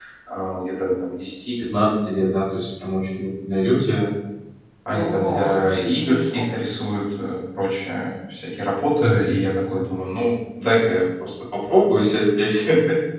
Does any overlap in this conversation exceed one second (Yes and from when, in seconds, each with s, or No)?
Yes, from 4.9 s